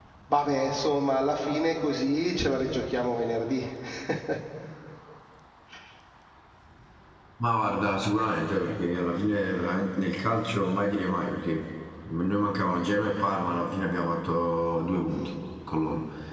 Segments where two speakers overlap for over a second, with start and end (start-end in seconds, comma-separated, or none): none